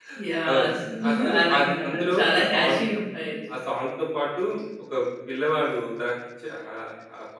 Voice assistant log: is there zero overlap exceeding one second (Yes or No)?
No